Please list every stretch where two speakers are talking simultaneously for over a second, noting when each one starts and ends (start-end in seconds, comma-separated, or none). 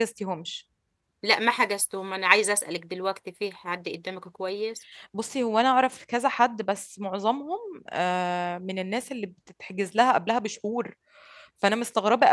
none